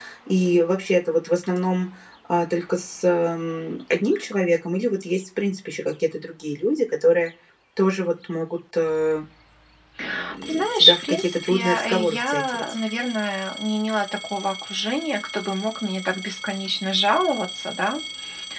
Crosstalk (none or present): present